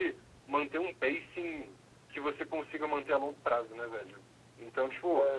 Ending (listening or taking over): listening